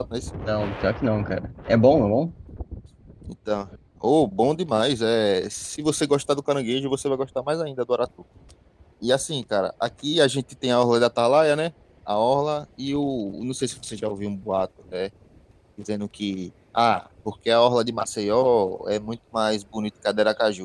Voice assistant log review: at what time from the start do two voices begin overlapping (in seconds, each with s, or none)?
none